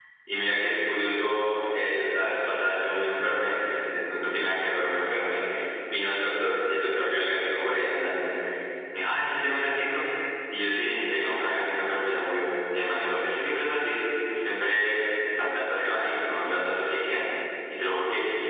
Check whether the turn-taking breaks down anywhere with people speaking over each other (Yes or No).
No